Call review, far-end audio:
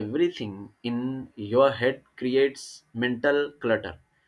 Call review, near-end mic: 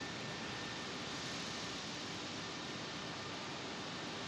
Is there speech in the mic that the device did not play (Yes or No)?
No